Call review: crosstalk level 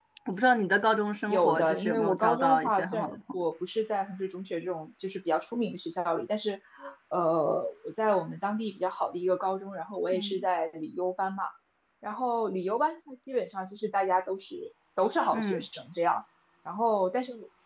present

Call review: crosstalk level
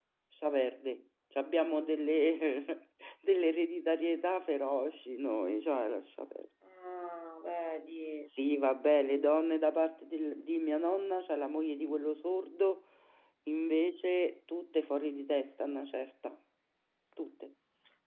none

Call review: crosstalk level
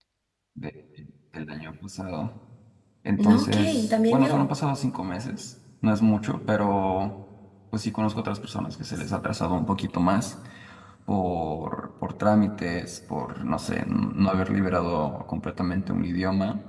present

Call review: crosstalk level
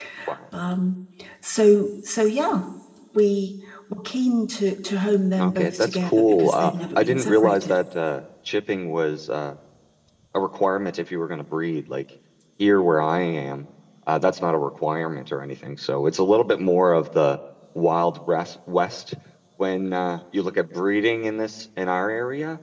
present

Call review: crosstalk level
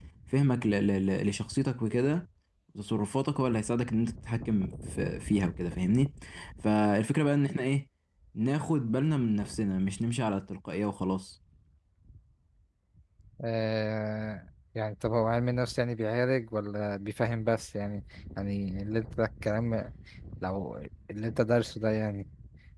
none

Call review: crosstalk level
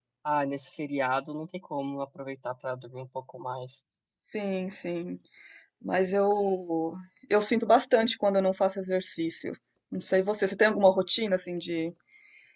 none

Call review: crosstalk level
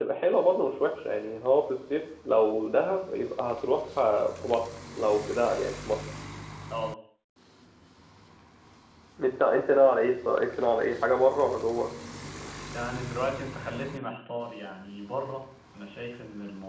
none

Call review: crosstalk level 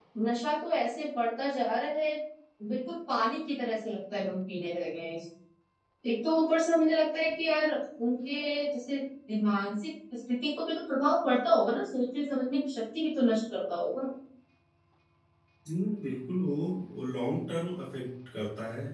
none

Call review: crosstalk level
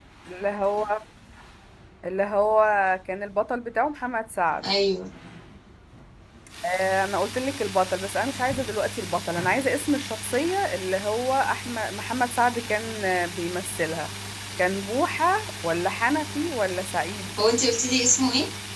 none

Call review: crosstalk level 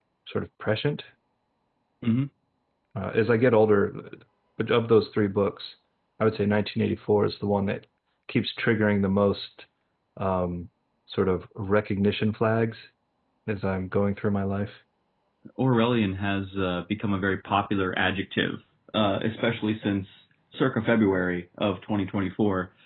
none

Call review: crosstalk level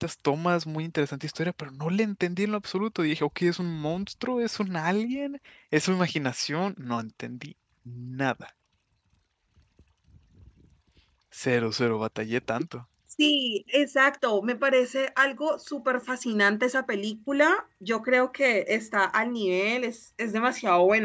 none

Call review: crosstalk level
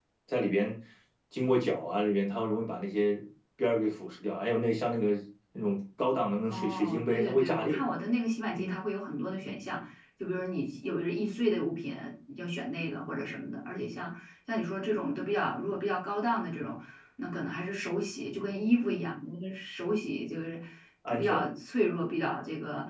present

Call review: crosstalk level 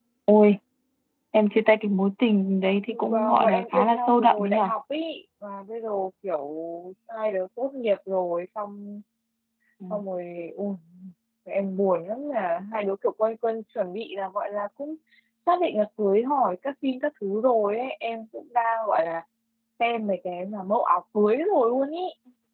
present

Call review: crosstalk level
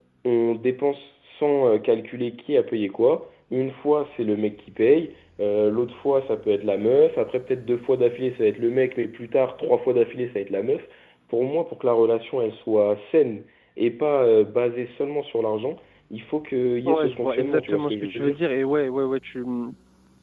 present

